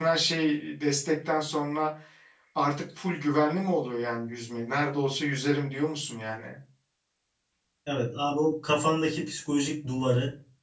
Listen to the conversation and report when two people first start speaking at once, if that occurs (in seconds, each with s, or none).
none